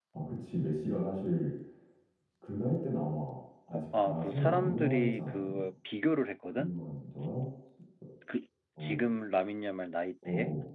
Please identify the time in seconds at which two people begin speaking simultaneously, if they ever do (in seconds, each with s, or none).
3.7 s